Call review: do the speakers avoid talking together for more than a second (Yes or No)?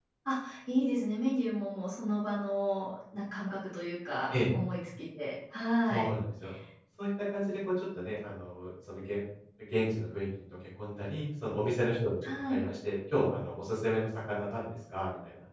Yes